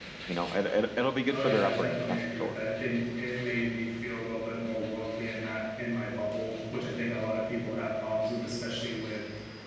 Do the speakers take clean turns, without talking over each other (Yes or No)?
No